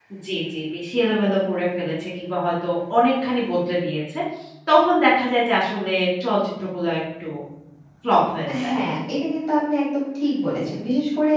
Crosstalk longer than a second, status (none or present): none